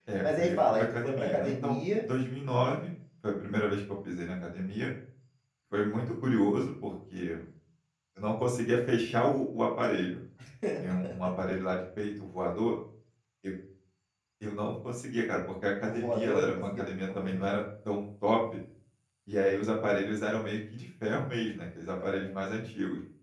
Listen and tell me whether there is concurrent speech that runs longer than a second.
Yes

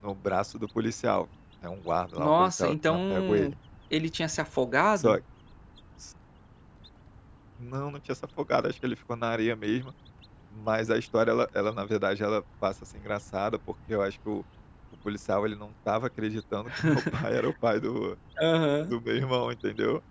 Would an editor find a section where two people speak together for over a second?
Yes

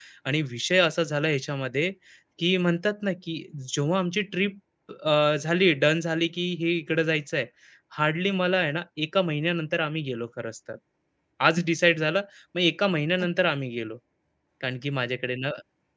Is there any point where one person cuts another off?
No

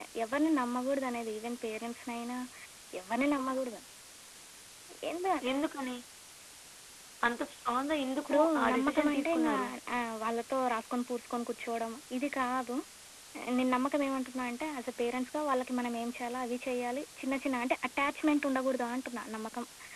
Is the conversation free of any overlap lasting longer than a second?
No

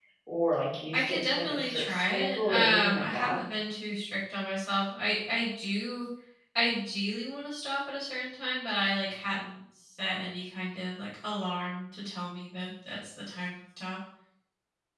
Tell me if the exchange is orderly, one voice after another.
No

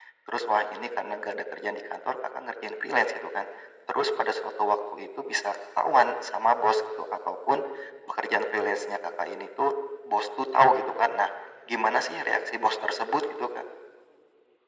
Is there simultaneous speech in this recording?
No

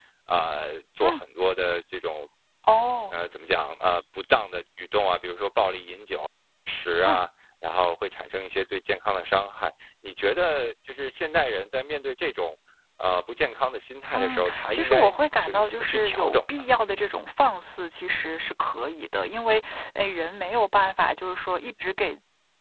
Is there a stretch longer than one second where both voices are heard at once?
Yes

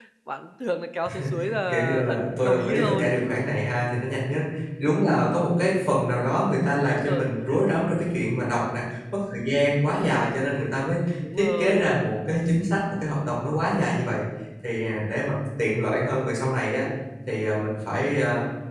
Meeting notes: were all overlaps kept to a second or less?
No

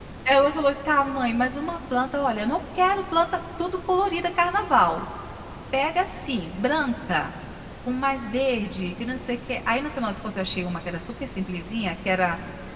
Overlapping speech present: No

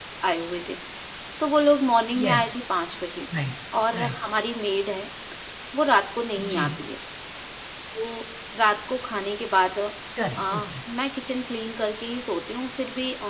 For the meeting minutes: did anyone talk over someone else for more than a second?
No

